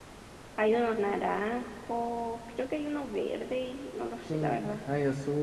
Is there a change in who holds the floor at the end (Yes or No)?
Yes